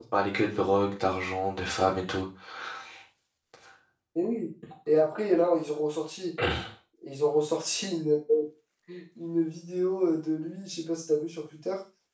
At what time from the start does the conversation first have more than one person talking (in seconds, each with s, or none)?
none